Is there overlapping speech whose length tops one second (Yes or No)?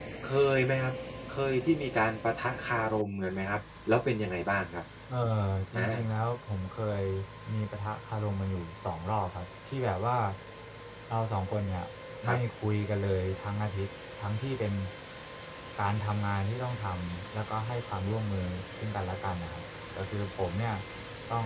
No